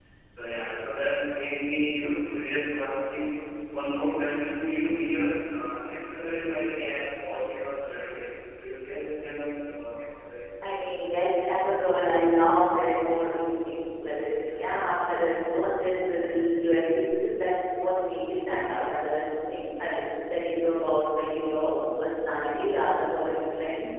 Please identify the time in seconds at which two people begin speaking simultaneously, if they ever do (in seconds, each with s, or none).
none